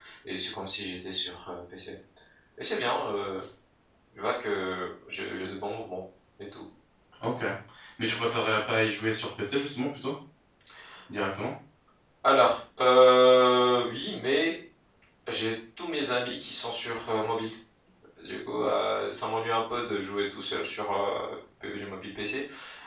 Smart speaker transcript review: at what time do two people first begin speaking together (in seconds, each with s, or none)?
none